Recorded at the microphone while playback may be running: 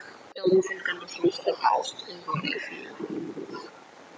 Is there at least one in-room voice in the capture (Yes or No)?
No